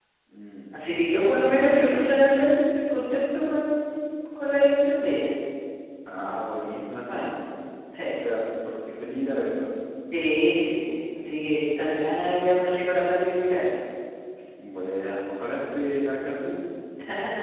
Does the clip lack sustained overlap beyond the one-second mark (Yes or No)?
No